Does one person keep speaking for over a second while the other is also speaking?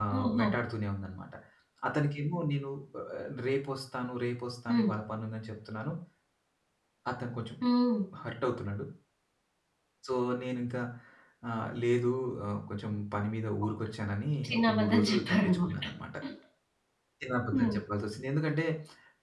Yes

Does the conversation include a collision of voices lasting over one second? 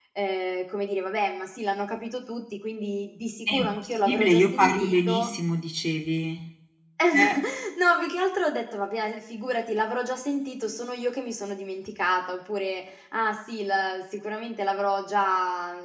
Yes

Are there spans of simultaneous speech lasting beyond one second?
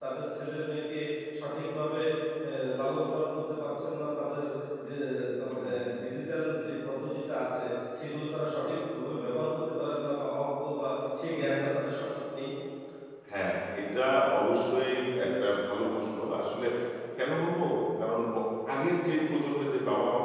No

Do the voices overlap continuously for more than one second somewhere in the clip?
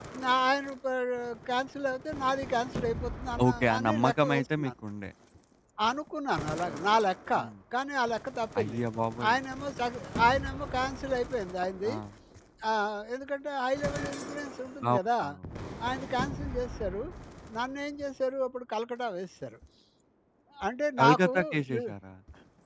Yes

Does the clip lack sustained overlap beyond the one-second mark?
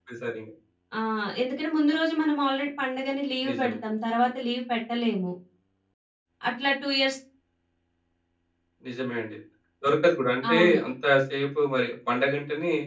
Yes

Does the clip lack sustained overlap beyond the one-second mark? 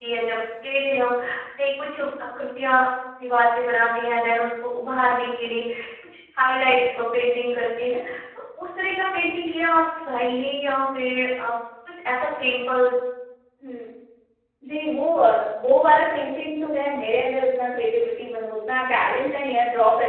Yes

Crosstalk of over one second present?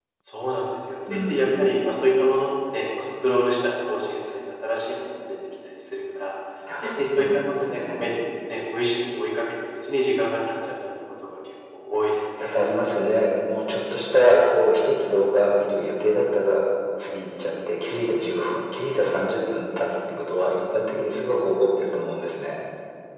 Yes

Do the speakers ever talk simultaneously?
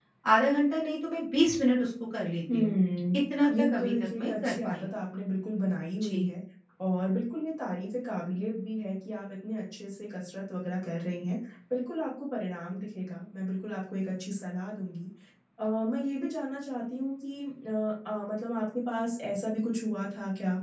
Yes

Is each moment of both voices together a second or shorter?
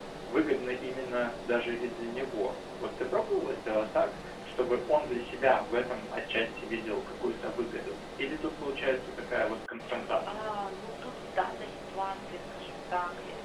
Yes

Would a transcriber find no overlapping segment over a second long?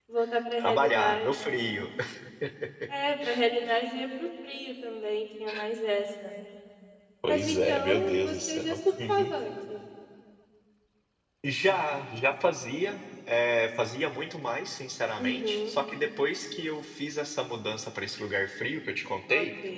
No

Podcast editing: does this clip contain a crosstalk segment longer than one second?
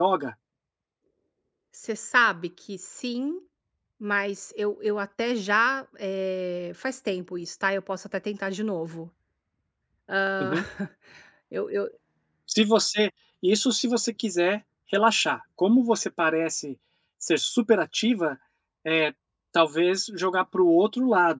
No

